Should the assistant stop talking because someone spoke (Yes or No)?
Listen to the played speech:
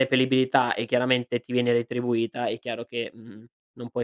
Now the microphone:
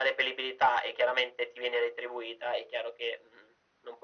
No